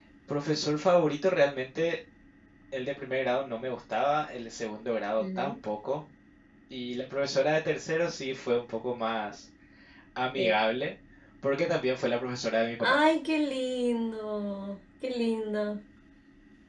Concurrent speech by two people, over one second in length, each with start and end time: none

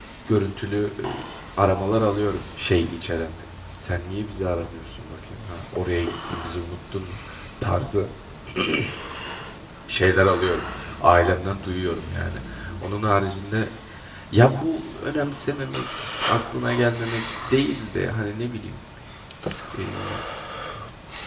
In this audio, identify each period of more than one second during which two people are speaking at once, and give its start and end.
none

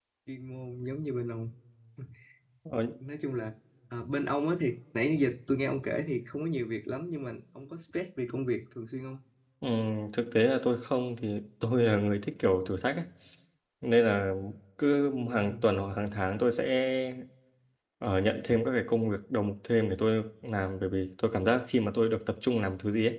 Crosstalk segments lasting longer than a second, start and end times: none

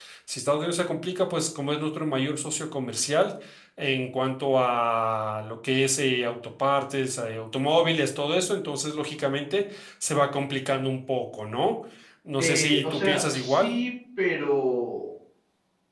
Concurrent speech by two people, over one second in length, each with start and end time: 12.4-13.8

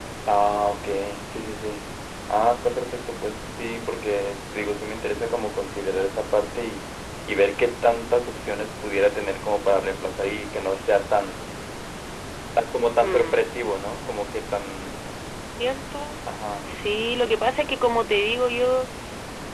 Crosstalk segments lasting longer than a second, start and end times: none

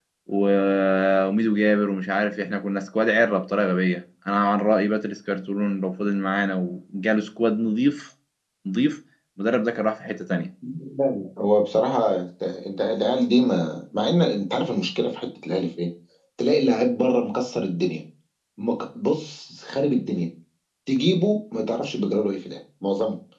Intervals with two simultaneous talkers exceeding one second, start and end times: none

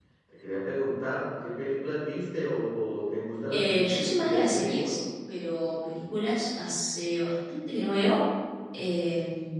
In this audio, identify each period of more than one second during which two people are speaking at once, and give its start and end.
3.5-5.0

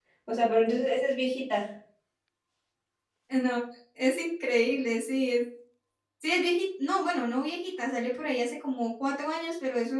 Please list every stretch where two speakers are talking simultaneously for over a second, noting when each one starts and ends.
none

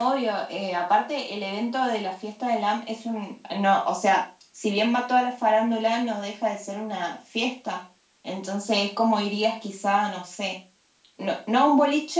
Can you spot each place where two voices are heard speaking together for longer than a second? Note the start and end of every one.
none

